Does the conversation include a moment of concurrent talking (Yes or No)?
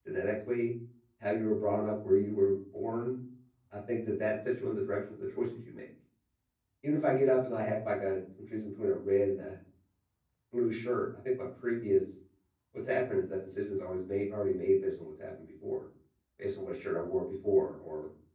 No